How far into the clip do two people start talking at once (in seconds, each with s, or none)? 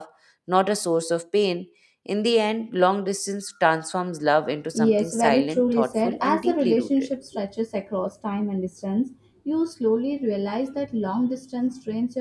4.7 s